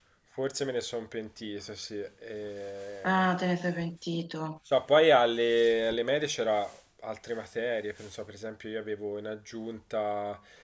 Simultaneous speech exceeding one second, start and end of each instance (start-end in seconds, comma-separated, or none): none